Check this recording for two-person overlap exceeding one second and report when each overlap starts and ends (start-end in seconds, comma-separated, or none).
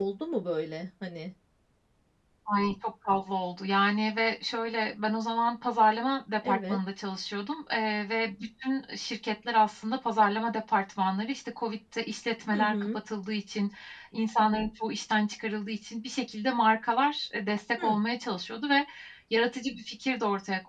none